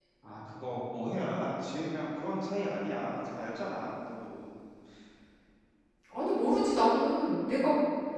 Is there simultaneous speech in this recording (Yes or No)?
No